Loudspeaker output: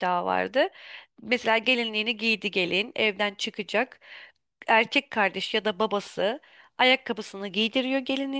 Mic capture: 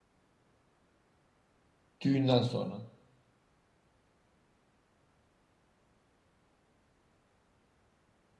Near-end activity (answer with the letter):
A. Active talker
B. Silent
A